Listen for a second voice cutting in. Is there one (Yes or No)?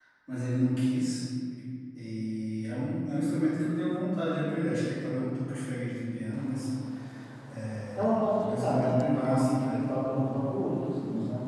Yes